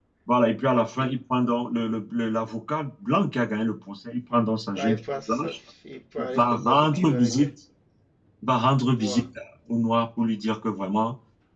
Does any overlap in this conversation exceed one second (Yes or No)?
Yes